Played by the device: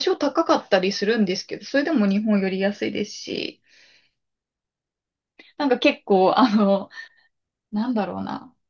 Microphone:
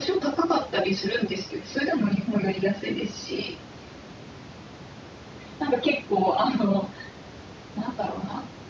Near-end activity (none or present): none